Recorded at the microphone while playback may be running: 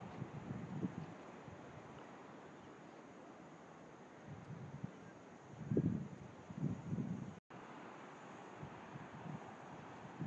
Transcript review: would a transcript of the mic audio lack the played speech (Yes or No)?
Yes